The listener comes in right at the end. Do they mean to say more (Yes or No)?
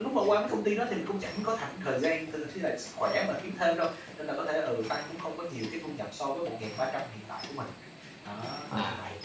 Yes